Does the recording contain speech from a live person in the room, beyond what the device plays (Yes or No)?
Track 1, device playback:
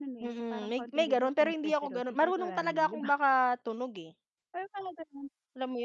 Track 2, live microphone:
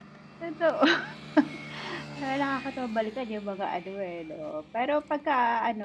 Yes